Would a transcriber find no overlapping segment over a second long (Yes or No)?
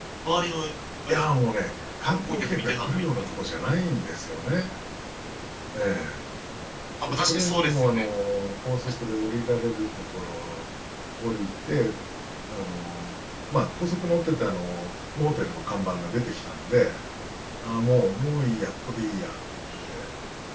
No